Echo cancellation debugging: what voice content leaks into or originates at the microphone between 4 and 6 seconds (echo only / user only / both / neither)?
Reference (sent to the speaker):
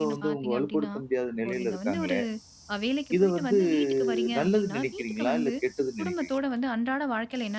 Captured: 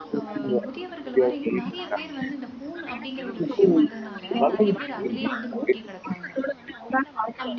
both